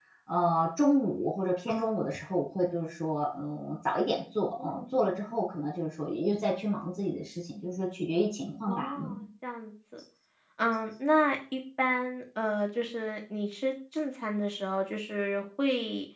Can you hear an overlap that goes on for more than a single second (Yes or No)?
No